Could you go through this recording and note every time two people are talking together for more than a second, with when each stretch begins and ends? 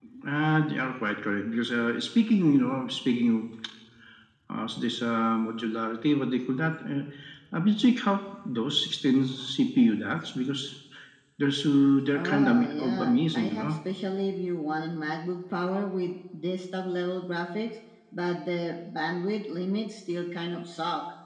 12.1-13.7

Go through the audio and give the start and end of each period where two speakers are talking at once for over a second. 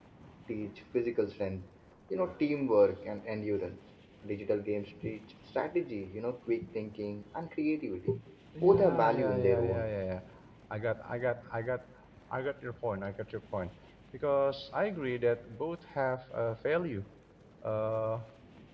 8.6-9.9

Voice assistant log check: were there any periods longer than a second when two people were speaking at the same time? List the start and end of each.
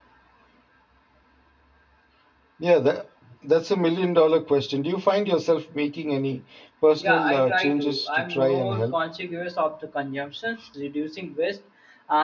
7.0-8.9

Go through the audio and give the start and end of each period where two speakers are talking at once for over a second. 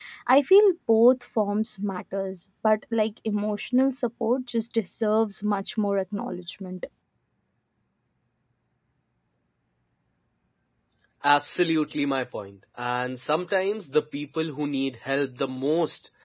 none

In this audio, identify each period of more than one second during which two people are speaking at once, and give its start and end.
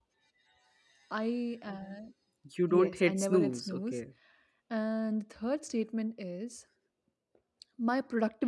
2.7-4.0

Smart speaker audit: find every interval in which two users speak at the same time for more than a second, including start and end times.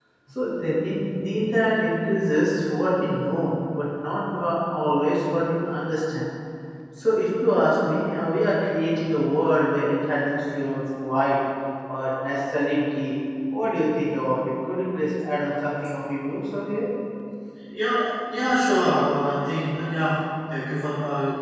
none

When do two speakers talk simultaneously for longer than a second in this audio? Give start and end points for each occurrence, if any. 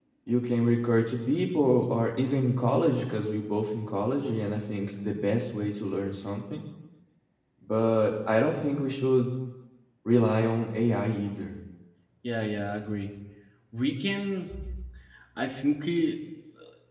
none

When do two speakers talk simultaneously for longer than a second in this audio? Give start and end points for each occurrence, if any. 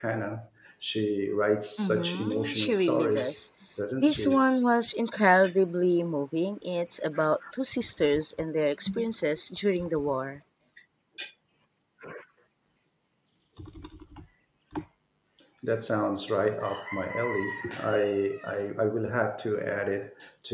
1.8-3.4

